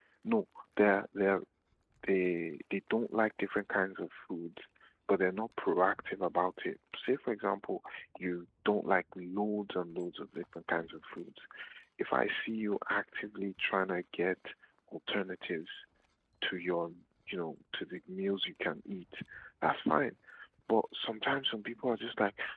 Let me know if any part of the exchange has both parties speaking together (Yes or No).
No